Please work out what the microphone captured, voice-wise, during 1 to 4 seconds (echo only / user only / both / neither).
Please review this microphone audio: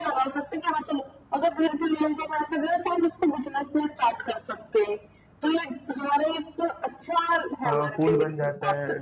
echo only